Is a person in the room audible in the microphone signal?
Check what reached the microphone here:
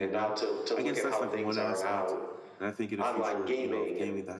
Yes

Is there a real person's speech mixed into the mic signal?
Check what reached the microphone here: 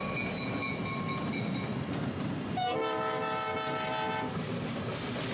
No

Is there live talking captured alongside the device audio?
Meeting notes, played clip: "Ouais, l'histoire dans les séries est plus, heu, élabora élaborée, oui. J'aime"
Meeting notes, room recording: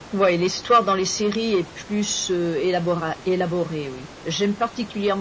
No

